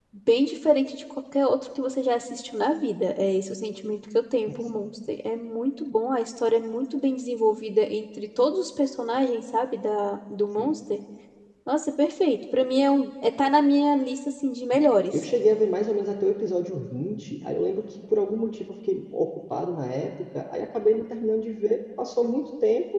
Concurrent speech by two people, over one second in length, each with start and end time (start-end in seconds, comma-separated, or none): none